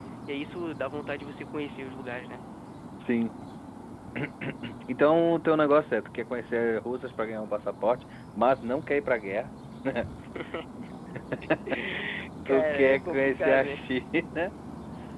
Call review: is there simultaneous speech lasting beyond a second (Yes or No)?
Yes